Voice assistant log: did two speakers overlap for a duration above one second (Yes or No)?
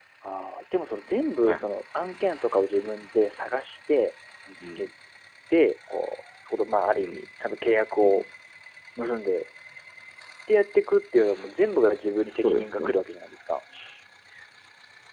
No